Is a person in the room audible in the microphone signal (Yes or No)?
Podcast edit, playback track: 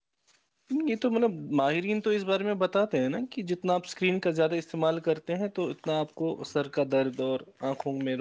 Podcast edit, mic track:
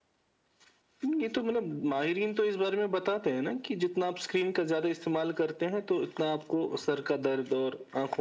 No